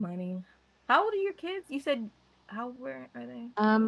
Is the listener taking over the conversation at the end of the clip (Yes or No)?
Yes